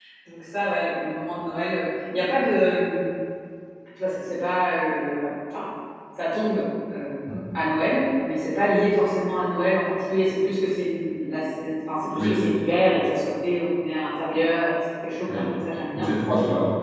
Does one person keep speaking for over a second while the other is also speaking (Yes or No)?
No